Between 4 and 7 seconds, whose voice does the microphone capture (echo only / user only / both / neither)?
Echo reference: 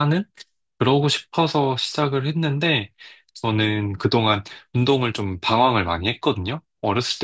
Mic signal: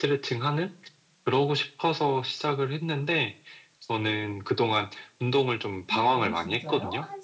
both